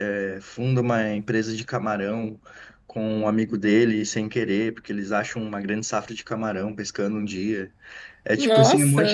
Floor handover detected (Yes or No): No